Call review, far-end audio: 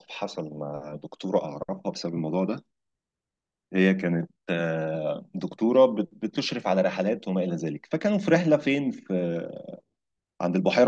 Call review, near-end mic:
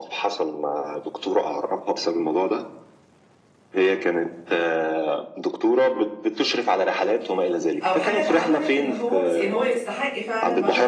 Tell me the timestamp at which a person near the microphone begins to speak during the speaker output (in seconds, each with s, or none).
7.8 s